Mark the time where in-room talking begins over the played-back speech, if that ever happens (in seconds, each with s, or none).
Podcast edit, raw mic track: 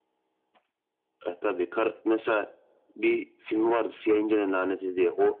none